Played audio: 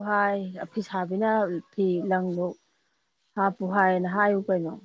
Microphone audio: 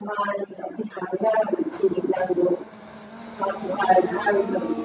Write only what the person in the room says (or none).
none